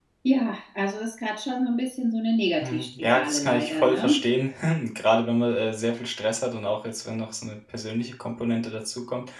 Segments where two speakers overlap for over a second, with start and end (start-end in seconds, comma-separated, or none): 2.6-4.2